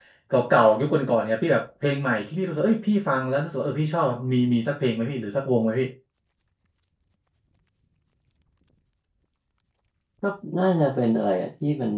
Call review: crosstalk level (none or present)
none